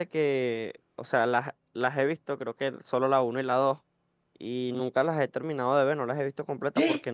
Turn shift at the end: No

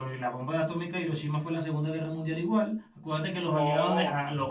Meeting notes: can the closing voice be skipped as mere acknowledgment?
Yes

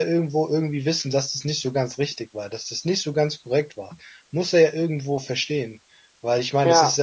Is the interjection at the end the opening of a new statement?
No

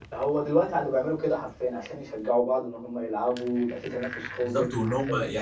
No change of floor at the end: No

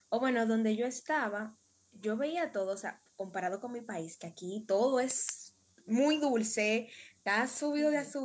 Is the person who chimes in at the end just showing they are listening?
Yes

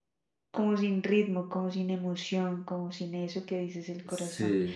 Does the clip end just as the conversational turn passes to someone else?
No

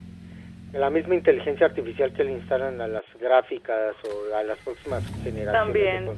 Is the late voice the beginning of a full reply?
No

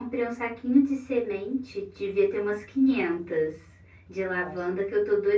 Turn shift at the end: No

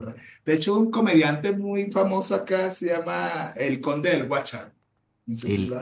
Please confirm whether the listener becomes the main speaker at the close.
Yes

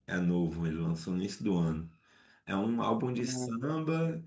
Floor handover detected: No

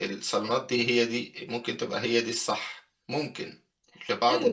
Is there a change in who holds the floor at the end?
Yes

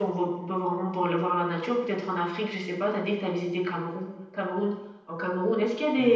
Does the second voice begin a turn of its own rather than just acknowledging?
No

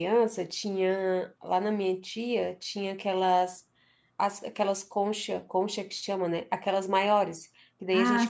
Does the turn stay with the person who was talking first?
Yes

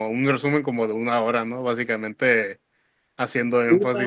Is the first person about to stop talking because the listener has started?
No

